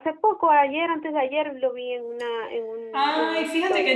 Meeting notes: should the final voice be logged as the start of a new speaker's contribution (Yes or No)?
Yes